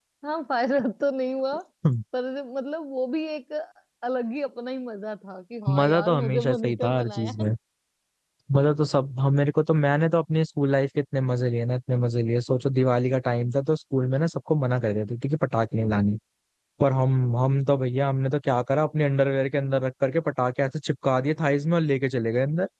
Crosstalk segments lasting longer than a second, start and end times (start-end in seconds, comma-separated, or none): 5.8-7.3